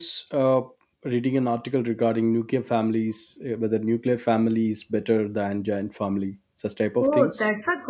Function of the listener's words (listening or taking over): taking over